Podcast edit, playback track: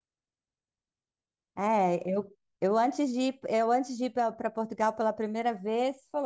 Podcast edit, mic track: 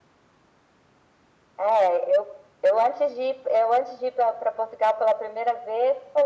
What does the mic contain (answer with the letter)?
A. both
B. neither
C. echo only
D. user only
C